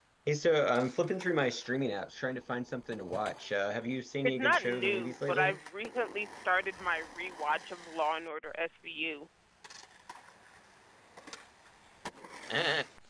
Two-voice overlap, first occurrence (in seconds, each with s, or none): 4.2 s